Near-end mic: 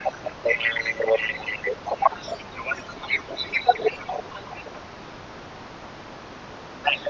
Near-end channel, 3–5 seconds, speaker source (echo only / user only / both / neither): echo only